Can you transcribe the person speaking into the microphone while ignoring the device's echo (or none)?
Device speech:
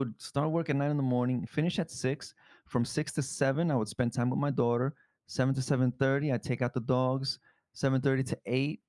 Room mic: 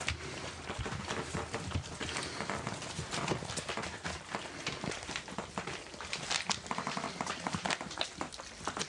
none